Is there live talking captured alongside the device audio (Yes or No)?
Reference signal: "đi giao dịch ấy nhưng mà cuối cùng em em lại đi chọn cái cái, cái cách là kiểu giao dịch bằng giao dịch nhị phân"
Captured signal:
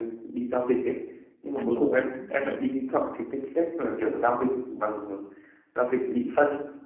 Yes